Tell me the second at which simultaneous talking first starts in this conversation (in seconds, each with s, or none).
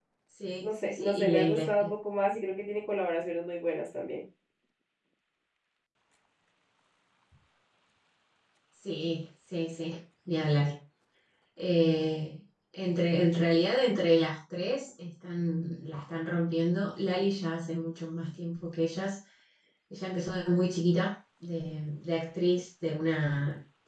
0.6 s